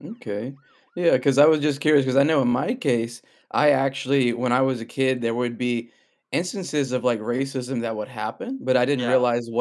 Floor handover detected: No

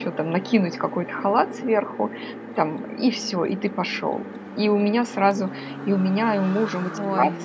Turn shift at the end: No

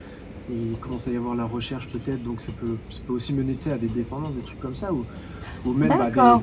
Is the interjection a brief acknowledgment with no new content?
No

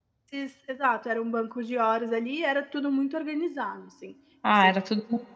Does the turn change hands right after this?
Yes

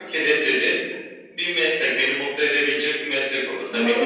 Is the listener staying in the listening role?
No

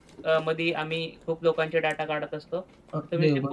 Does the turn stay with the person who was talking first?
No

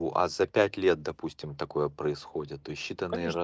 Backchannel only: No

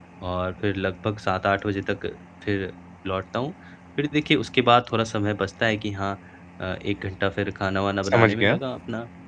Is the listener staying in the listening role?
Yes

